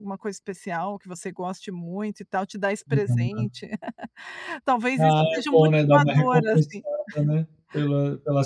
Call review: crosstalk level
present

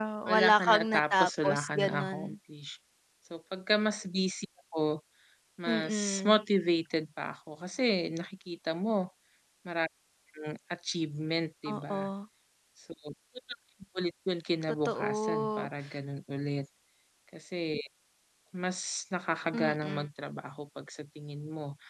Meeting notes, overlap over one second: present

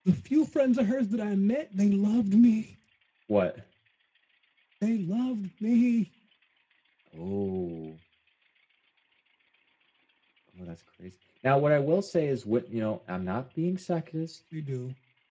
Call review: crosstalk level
none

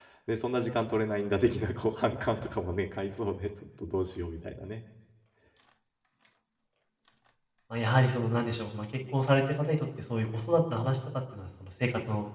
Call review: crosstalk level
none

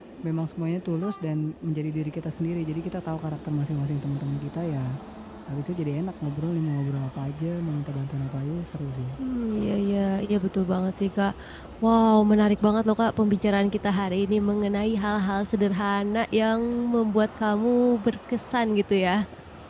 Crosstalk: none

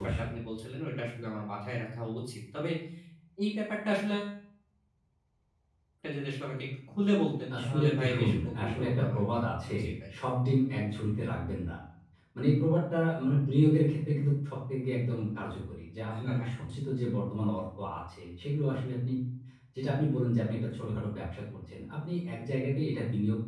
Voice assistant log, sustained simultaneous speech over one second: present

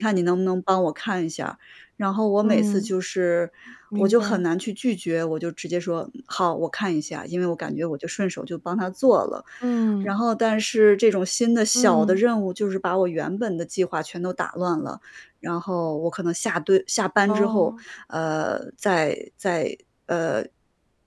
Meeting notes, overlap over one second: none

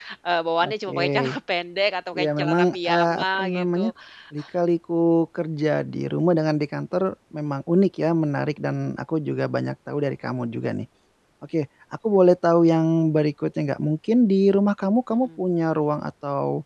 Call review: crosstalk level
present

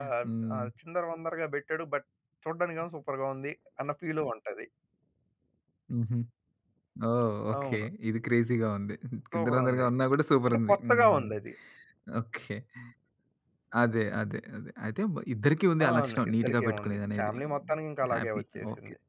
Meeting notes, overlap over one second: present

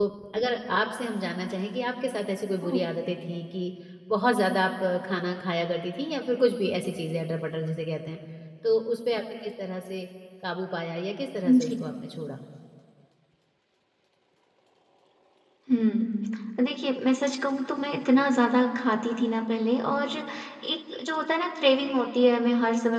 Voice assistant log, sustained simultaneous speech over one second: none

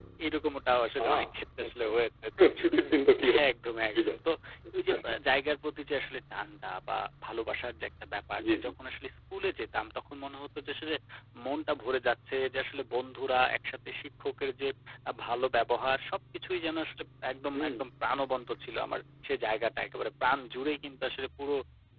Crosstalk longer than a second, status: none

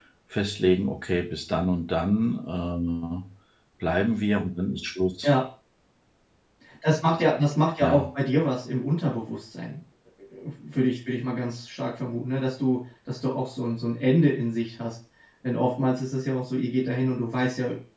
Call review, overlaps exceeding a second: none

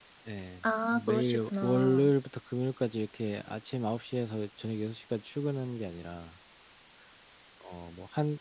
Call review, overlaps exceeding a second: present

